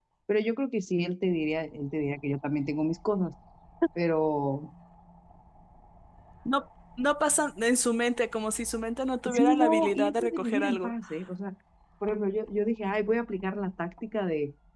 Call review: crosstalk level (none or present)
present